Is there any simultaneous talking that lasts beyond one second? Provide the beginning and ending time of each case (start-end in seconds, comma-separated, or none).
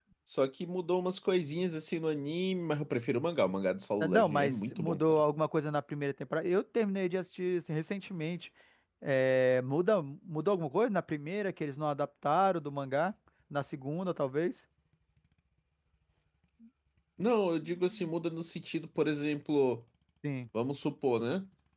4.0-5.2